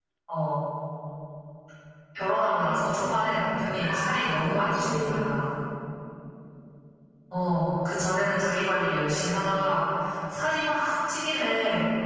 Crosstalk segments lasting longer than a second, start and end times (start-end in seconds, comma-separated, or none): 3.8-5.2